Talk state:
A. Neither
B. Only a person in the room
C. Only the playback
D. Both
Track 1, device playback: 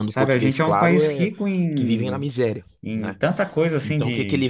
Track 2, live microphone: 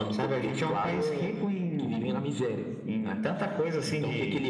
C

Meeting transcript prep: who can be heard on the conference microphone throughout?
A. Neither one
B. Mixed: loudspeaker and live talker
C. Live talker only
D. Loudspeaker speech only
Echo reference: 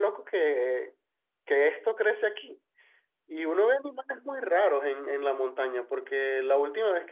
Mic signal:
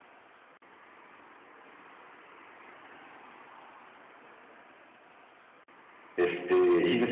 C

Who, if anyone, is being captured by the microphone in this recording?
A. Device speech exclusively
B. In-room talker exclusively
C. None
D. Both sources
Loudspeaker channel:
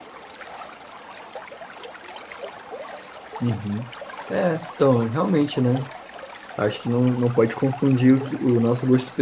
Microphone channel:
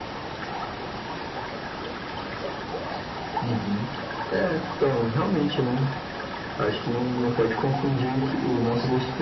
A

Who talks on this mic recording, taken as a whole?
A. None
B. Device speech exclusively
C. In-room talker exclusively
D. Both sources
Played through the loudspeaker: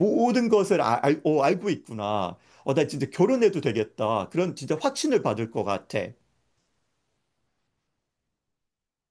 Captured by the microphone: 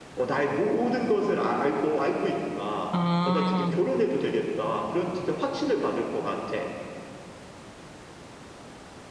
D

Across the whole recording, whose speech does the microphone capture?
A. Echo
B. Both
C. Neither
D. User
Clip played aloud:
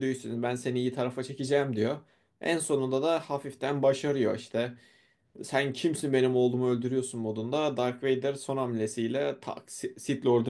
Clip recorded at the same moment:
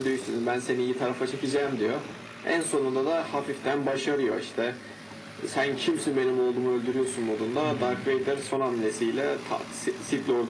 B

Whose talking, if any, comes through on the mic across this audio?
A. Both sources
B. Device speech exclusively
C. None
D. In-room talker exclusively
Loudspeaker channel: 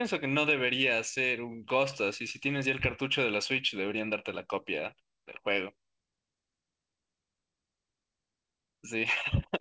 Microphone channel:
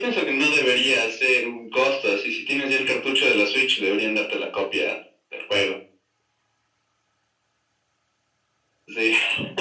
B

